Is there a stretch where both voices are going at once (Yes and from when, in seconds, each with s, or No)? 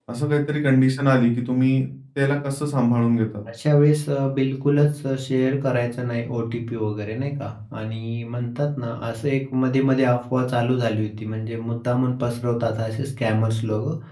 No